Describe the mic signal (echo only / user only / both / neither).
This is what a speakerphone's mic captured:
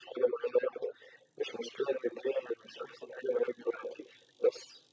echo only